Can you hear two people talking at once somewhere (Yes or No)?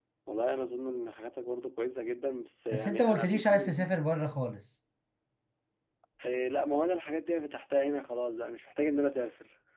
Yes